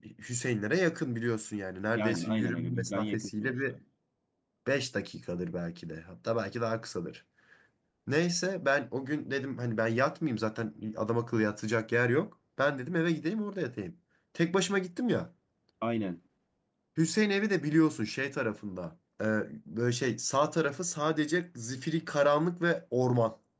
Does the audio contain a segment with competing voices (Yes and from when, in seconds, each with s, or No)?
Yes, from 1.9 s